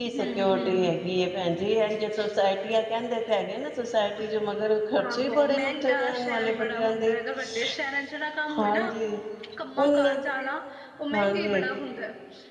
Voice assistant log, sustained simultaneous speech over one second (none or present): present